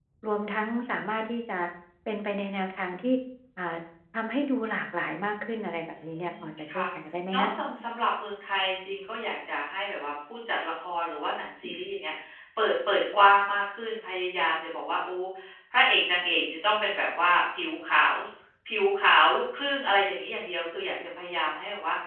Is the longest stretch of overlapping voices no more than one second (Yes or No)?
Yes